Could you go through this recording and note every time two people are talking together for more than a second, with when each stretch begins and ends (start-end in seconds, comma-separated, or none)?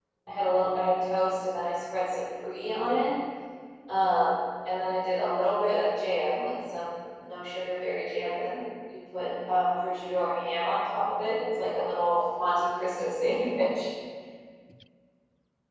none